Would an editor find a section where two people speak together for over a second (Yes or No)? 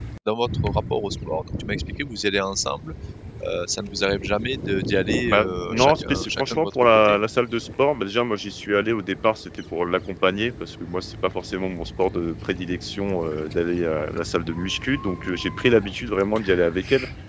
Yes